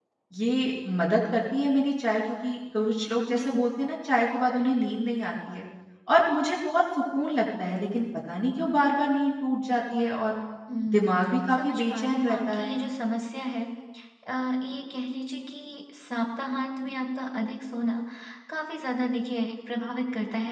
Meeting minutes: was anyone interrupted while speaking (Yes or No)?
Yes